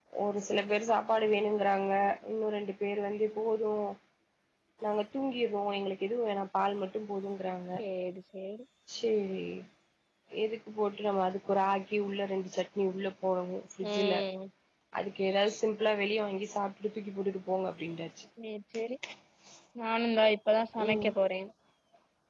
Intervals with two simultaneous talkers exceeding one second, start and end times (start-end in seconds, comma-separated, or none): none